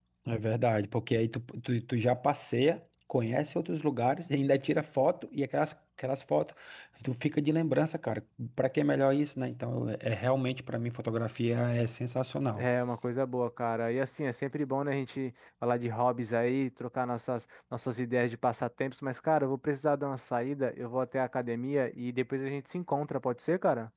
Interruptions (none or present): none